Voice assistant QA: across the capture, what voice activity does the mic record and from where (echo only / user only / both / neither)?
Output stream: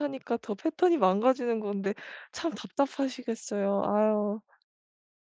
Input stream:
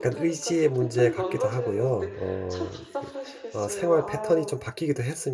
both